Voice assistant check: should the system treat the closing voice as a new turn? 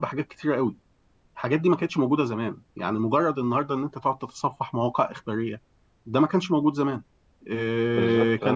No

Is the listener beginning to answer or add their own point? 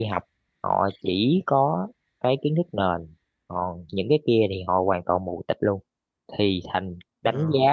No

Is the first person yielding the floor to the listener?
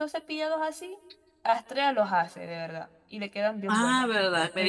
Yes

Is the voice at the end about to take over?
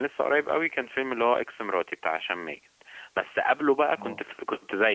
No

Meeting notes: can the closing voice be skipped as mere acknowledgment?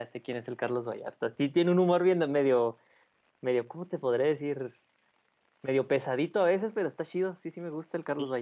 No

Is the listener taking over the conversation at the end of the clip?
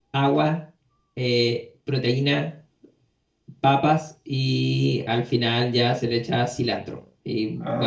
No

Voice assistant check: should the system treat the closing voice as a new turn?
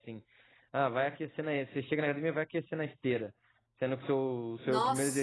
No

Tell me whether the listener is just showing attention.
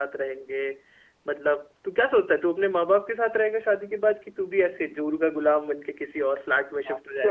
No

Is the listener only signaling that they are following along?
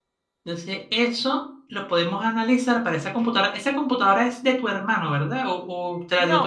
No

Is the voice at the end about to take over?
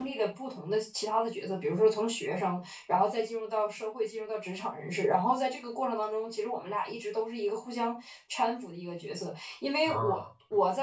No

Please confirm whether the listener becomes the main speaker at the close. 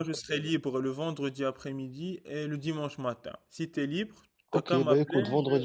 Yes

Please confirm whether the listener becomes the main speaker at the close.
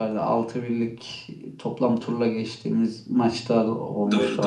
Yes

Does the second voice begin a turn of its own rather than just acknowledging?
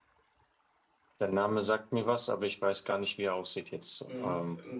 Yes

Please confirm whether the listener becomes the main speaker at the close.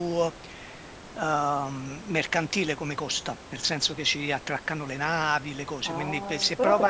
Yes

